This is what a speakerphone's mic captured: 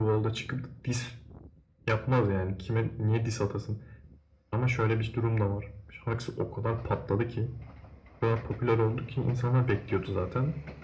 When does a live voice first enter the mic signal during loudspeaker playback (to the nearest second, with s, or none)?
none